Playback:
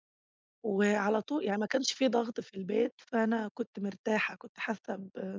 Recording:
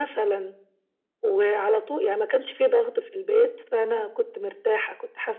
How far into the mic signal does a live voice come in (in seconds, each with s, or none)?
none